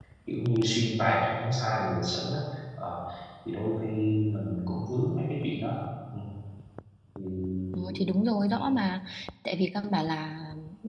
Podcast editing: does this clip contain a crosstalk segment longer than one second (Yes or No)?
No